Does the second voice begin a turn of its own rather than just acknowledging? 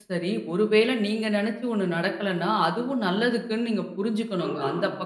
Yes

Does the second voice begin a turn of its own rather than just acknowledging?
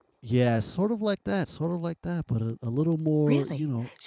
Yes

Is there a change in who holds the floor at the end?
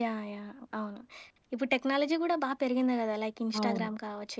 No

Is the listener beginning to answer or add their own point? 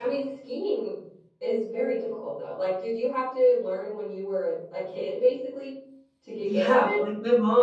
Yes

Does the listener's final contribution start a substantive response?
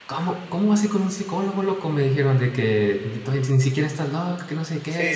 Yes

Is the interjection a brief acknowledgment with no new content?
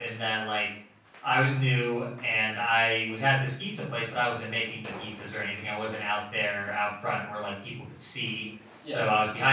Yes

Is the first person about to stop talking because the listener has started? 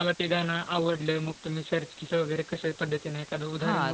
Yes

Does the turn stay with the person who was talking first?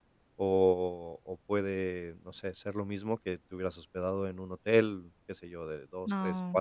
Yes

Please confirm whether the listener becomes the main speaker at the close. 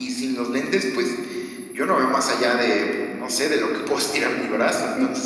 Yes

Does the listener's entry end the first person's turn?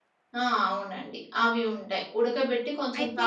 No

